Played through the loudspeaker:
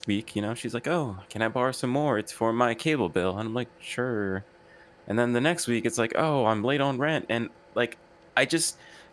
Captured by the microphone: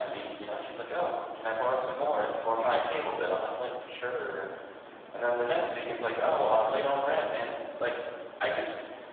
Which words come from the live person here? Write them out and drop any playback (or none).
you're not